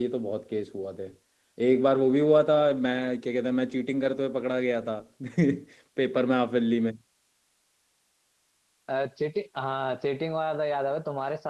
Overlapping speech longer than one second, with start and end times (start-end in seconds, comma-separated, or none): none